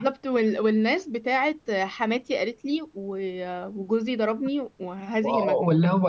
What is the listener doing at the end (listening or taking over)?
taking over